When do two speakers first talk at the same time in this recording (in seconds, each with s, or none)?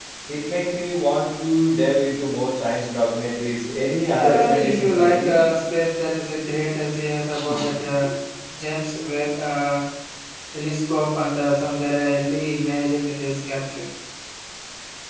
4.2 s